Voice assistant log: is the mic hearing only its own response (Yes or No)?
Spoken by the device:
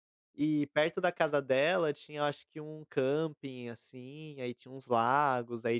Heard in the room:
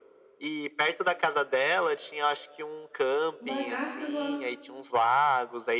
No